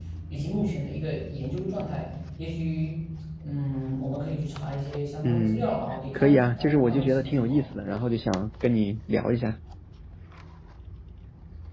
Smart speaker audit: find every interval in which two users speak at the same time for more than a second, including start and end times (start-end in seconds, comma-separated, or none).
6.1-7.6